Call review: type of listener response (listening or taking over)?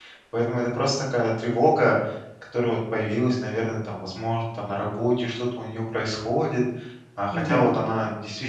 listening